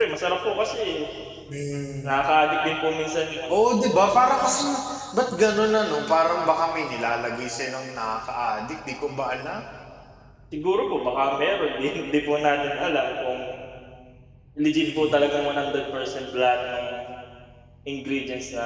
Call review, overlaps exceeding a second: none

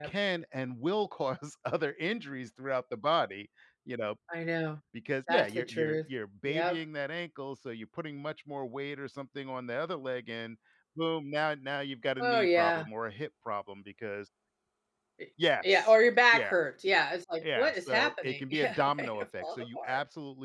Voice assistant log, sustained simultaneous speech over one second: present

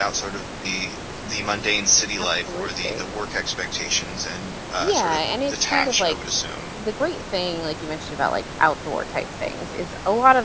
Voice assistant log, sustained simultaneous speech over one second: present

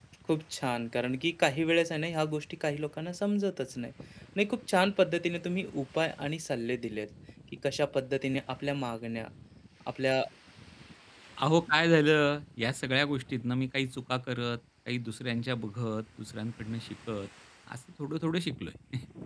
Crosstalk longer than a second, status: none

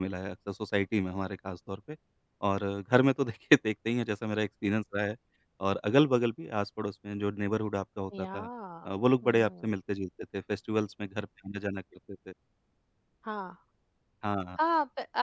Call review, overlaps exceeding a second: none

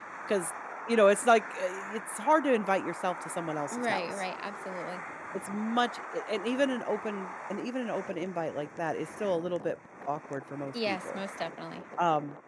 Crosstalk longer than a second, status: none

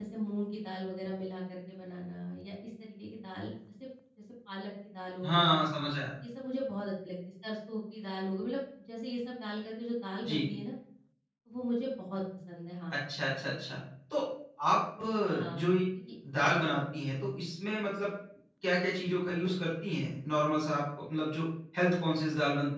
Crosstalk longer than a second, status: none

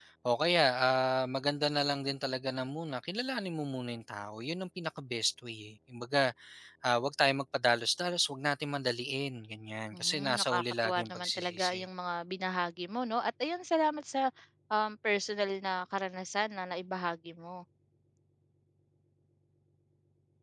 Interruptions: present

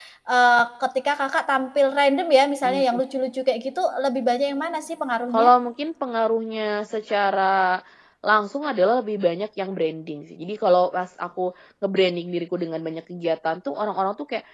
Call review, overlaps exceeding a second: none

